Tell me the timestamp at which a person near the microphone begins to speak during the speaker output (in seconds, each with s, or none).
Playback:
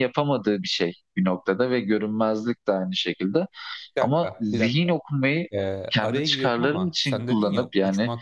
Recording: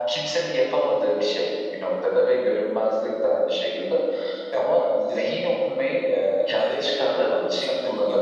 none